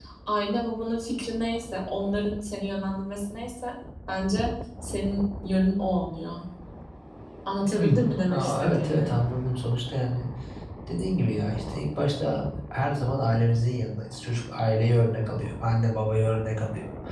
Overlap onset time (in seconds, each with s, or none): 7.8 s